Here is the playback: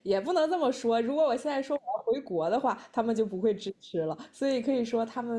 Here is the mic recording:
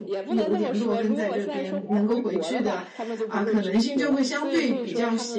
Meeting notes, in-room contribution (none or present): present